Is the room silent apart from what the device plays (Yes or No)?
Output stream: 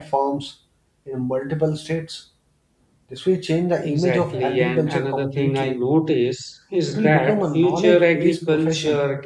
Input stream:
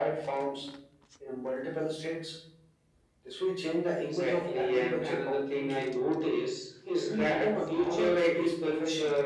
Yes